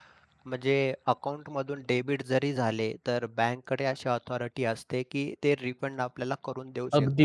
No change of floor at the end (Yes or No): No